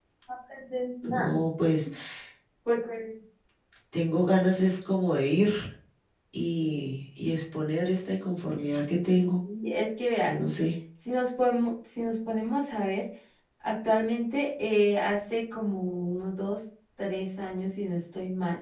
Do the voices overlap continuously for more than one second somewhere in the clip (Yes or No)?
No